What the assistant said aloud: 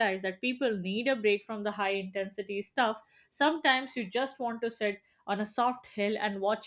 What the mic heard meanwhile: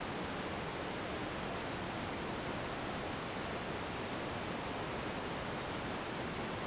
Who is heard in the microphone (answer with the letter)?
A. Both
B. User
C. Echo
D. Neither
D